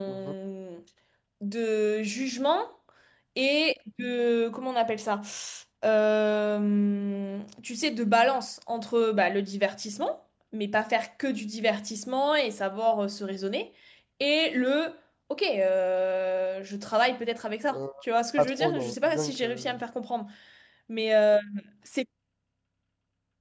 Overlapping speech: Yes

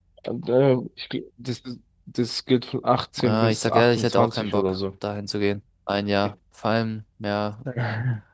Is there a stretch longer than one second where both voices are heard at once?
Yes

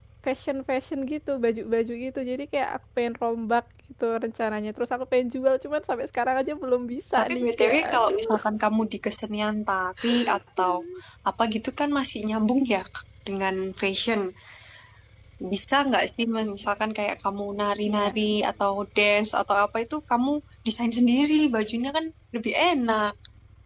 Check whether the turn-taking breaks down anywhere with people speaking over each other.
Yes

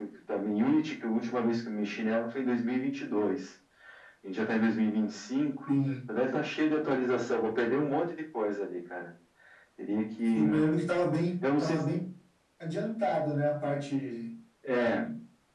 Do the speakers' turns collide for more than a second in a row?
No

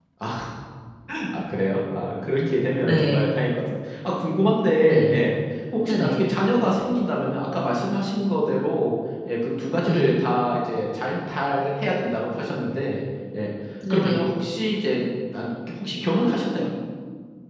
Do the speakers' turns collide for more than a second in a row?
No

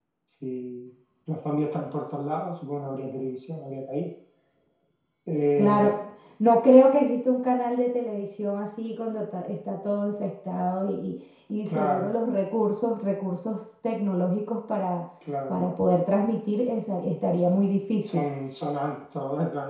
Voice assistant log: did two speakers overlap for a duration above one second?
No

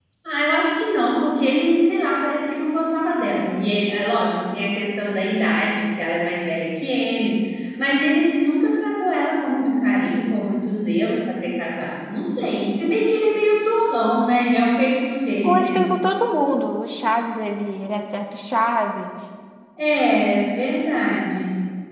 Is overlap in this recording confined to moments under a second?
Yes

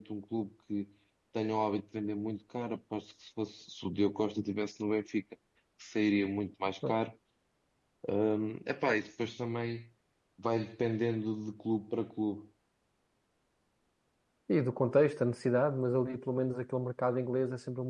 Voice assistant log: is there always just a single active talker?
Yes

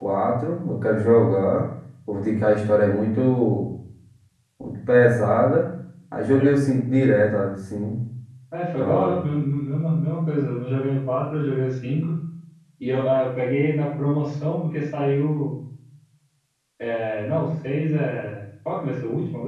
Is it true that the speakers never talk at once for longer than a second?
Yes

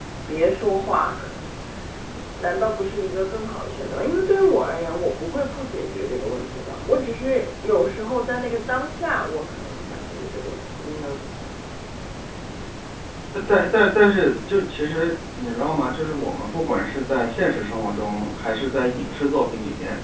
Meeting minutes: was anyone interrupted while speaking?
No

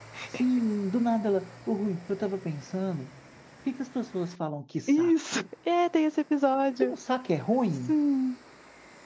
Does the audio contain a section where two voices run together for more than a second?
No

